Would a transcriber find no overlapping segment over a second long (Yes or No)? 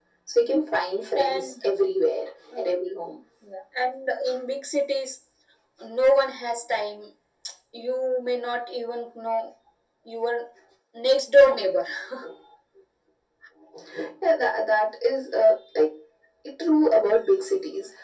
Yes